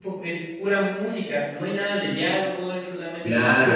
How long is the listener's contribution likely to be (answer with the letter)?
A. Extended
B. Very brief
A